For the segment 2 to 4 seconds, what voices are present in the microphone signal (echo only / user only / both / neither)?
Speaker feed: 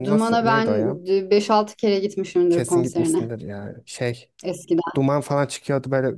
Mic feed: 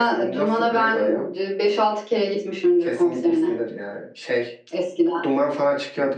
echo only